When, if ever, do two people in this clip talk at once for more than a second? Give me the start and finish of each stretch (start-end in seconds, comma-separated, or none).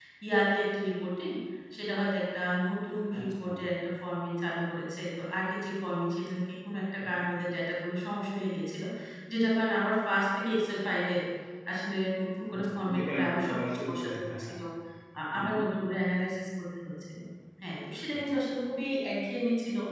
12.5-14.5